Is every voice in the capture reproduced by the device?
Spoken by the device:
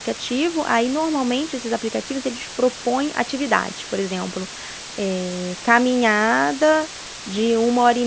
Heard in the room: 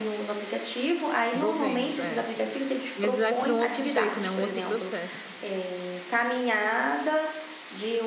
No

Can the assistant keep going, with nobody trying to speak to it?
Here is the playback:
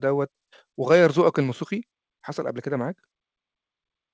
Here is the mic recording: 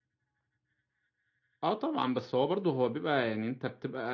No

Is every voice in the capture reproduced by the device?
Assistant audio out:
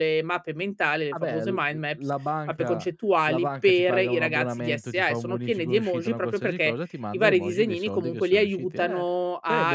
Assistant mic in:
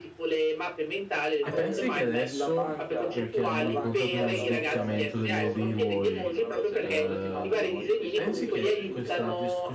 No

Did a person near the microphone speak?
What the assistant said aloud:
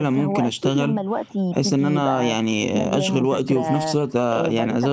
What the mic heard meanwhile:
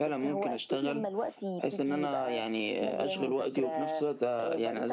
No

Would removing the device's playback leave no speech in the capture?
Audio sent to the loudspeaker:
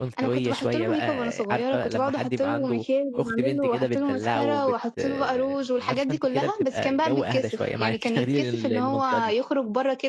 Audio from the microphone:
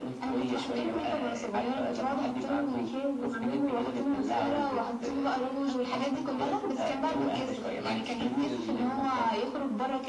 No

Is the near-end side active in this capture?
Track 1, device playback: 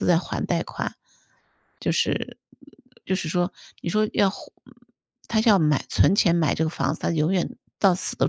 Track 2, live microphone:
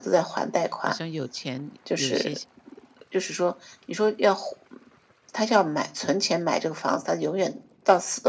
Yes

